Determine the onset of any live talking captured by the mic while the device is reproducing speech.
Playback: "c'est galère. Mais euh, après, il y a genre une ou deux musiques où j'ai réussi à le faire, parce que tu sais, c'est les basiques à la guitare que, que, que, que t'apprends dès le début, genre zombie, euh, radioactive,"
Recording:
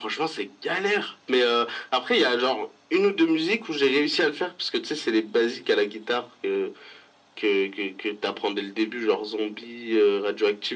none

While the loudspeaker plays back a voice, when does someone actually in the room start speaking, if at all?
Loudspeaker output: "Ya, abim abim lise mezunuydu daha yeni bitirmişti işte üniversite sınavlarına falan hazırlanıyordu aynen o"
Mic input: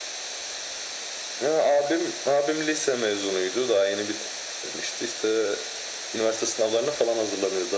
none

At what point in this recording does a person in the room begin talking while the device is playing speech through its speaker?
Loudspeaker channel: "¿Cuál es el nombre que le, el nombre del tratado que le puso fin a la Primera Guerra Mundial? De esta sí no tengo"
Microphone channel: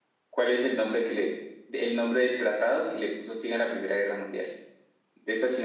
none

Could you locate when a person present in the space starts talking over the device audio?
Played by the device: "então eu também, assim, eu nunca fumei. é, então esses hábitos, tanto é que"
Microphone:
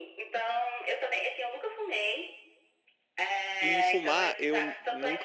4 s

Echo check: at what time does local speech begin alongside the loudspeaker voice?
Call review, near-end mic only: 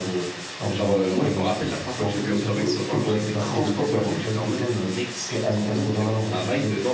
1 s

